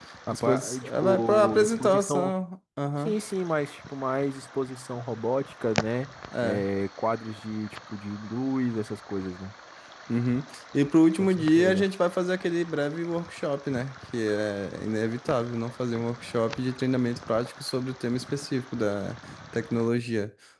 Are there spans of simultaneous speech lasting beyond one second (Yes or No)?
Yes